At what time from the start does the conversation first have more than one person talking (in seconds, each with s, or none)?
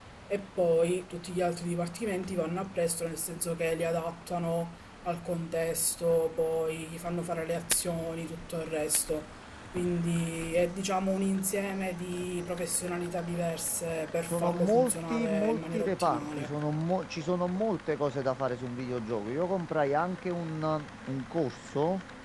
14.3 s